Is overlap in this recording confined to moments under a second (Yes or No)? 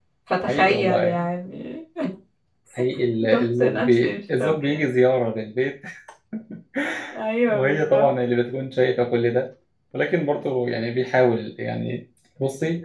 No